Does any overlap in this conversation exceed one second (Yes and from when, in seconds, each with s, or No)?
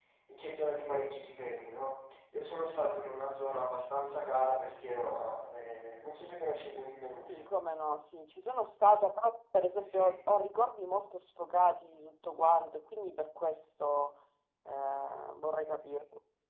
No